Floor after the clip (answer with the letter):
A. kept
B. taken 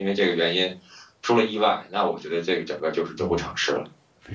B